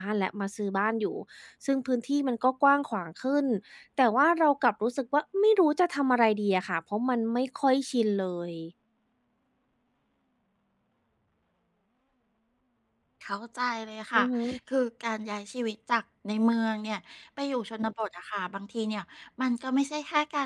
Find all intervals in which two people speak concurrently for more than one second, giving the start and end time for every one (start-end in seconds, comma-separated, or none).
none